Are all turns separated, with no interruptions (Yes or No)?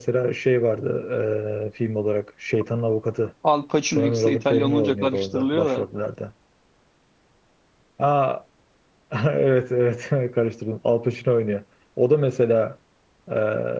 No